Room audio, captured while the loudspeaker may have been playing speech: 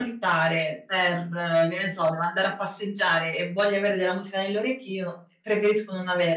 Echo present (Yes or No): No